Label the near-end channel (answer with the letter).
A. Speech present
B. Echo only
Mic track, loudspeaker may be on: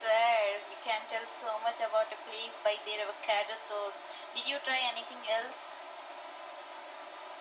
B